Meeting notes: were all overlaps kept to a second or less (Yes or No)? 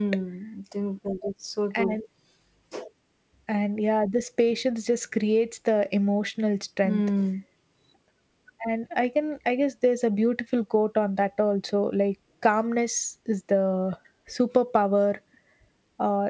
Yes